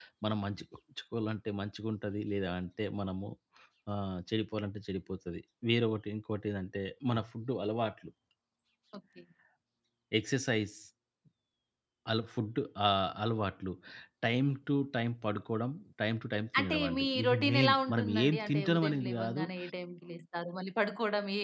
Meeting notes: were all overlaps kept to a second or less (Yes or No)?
No